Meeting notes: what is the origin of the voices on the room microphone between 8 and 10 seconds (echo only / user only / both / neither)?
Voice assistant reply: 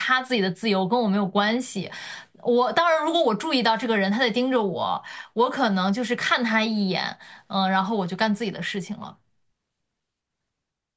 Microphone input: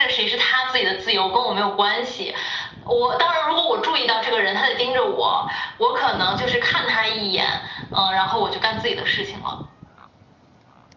echo only